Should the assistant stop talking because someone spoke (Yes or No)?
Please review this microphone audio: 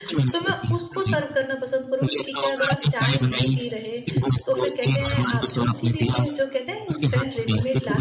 Yes